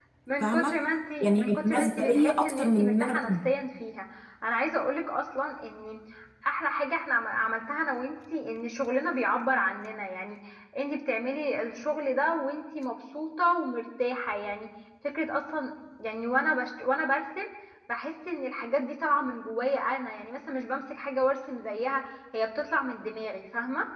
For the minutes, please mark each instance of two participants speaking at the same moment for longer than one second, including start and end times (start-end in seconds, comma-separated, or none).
1.2-3.5